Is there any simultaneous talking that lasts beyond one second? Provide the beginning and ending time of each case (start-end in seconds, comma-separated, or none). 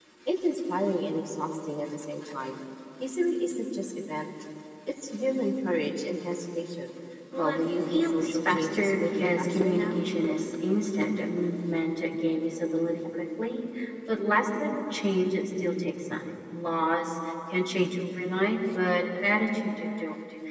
7.3-10.0